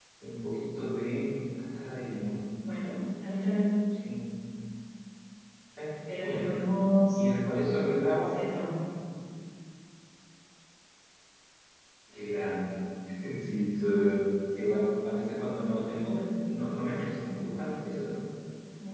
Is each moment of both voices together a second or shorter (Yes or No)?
Yes